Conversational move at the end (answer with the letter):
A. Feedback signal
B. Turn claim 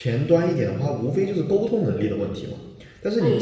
B